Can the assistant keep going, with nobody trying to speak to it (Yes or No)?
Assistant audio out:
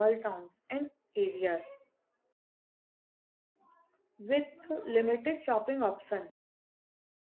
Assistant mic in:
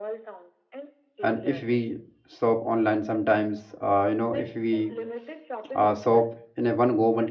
No